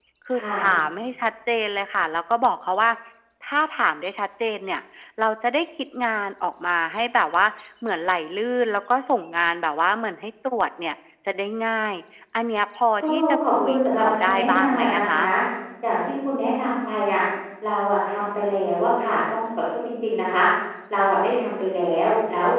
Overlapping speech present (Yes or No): Yes